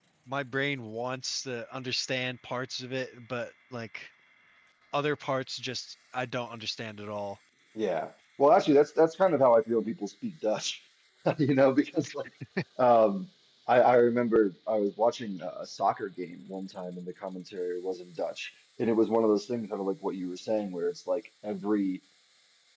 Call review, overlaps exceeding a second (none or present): none